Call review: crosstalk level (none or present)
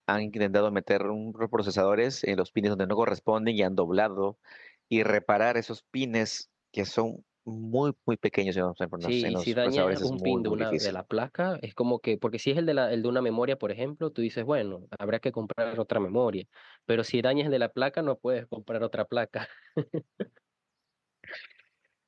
present